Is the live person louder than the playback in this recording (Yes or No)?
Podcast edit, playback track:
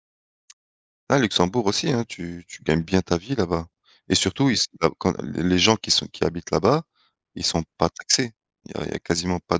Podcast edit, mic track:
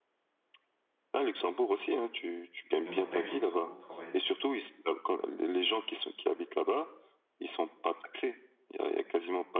No